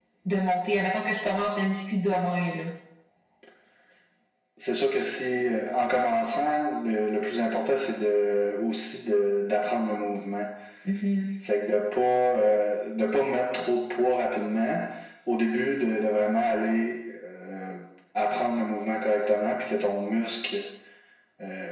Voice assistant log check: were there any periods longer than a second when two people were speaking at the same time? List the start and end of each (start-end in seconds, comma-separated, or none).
none